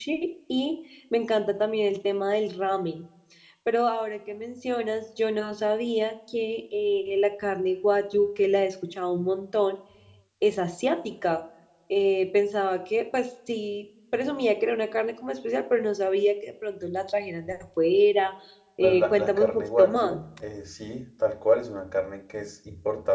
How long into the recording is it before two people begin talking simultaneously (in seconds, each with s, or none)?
18.8 s